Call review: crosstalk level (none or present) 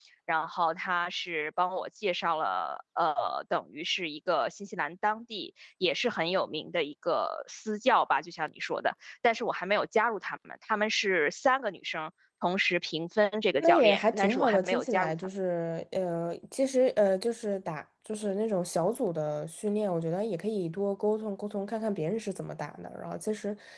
present